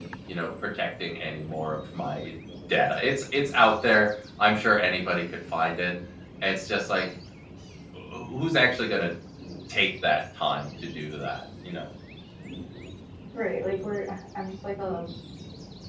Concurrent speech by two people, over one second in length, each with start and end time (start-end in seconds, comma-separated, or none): none